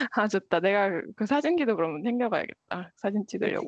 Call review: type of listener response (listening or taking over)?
taking over